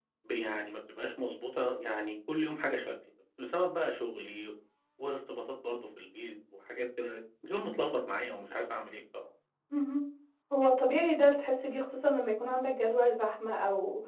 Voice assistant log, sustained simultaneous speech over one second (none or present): none